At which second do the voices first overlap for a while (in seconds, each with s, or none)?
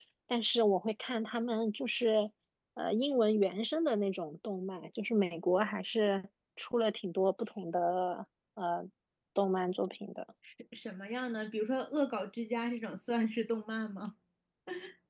none